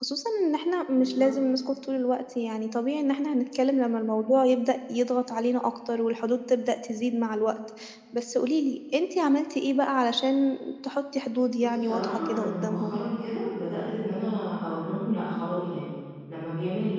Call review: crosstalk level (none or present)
present